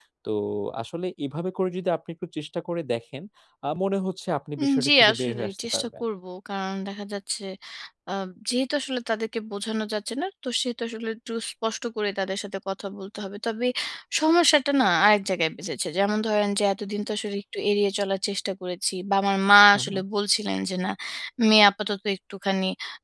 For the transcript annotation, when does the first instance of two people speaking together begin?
5 s

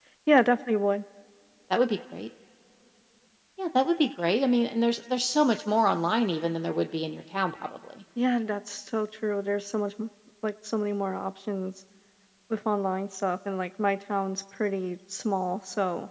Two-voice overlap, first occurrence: none

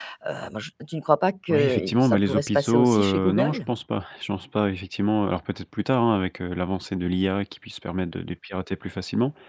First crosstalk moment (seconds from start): 1 s

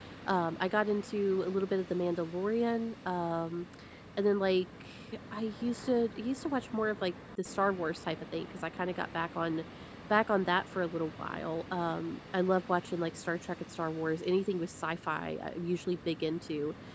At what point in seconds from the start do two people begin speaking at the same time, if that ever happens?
none

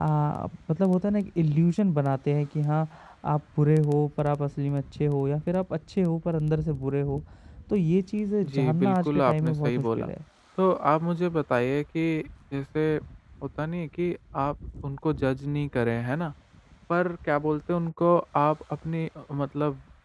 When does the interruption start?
8 s

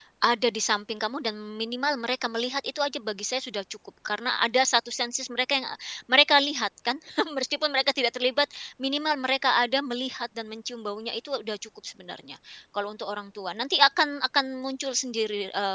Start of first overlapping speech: none

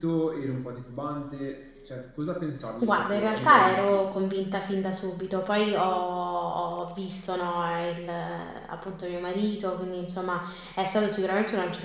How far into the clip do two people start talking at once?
3 s

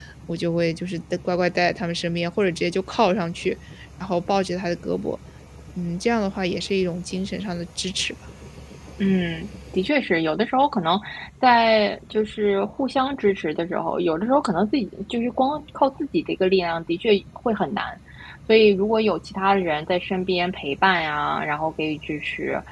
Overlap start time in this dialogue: none

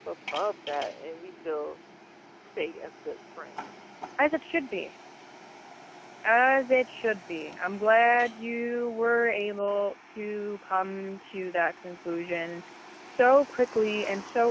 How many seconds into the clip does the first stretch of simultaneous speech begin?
none

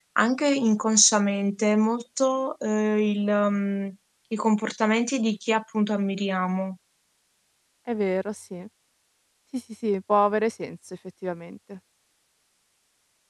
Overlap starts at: none

